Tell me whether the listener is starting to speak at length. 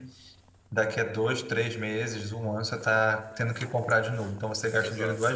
No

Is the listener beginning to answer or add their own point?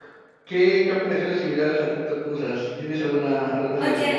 Yes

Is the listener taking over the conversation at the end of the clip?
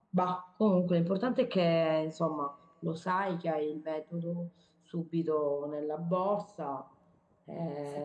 Yes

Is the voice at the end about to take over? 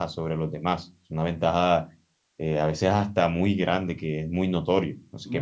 Yes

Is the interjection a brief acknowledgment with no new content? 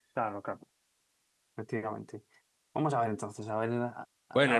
No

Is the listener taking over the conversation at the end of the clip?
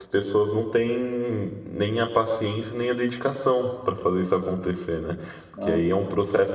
No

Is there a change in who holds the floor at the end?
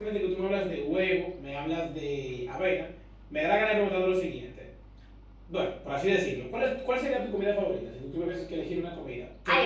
Yes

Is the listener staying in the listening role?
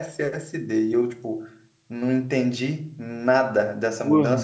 Yes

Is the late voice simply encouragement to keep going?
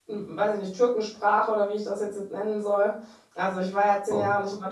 Yes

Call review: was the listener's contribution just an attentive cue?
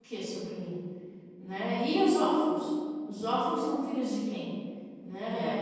Yes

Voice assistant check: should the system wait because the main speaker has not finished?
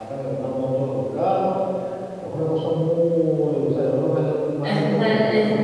No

